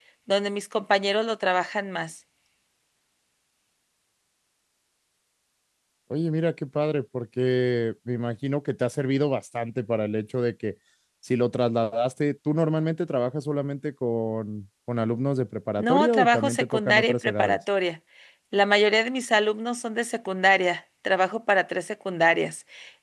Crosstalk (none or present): present